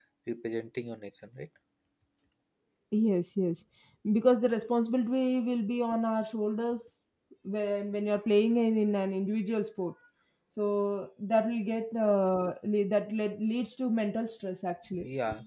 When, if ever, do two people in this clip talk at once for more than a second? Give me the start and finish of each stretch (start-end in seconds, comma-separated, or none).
none